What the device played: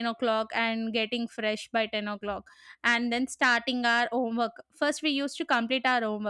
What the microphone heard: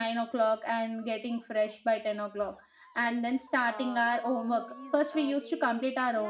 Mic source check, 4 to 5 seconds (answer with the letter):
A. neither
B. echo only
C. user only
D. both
D